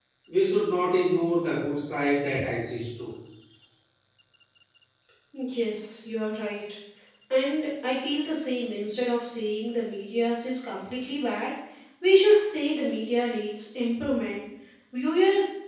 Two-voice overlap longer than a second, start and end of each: none

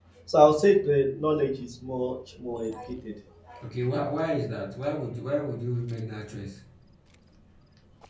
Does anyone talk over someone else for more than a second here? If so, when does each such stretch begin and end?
none

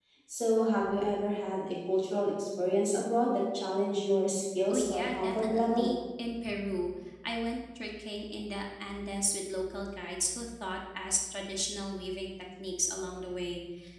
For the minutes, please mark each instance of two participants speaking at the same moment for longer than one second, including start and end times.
4.7-5.9

